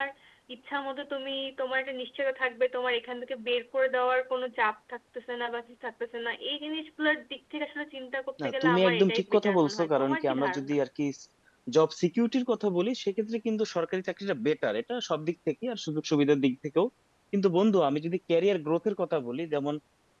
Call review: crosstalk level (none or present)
present